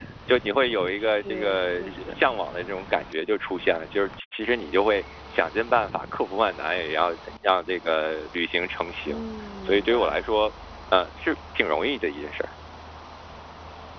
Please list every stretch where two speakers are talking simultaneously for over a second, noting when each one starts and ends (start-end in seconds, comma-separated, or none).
1.0-2.2